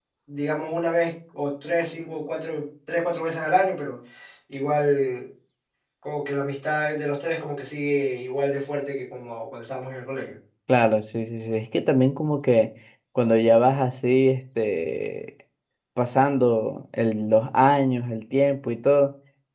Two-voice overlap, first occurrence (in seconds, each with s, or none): none